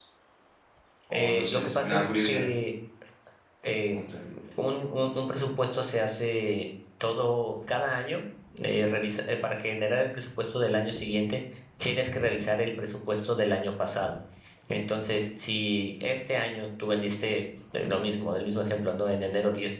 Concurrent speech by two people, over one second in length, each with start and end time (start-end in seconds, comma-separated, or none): 1.2-2.4